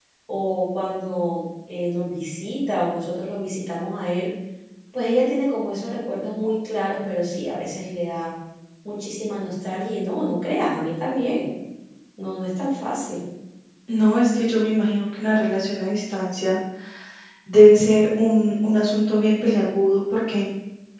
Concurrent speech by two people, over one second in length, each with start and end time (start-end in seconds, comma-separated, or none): none